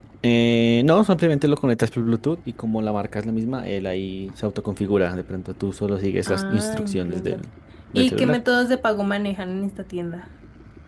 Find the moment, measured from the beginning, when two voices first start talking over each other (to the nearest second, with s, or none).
6 s